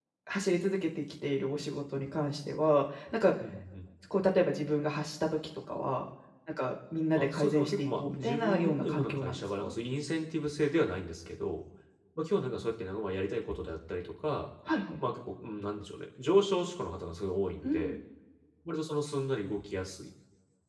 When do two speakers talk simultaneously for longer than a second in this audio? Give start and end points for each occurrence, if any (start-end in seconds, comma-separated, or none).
7.2-9.7